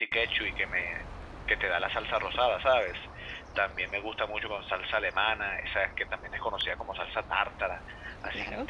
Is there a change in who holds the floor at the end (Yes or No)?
No